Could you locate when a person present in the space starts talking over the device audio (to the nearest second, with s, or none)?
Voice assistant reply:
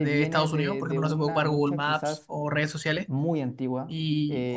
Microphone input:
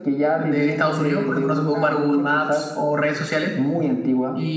none